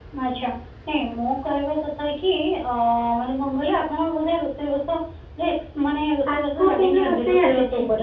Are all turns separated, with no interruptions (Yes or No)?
No